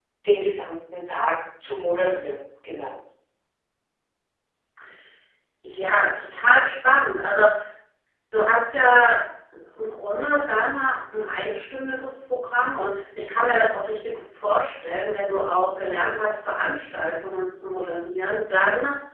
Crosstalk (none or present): none